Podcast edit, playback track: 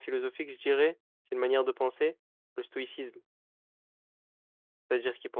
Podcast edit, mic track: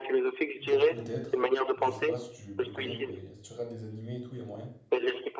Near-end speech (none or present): present